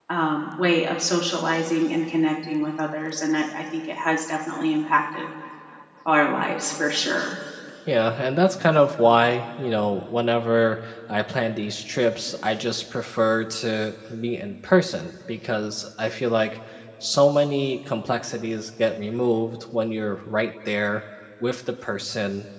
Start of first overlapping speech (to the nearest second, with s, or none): none